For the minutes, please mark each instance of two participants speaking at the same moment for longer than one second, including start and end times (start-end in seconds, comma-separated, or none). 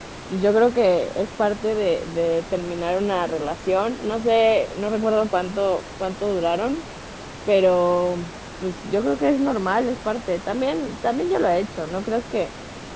none